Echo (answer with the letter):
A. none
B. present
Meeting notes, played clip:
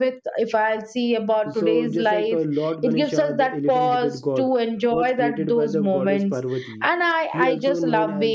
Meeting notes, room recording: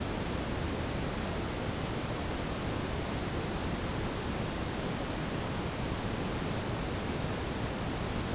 A